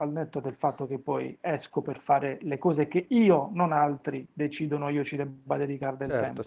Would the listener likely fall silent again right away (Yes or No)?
No